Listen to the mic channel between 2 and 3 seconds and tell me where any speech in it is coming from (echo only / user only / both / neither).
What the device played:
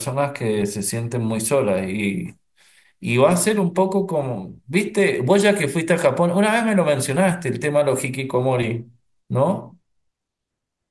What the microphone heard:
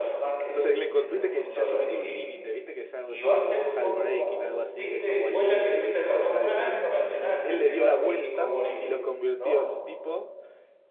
both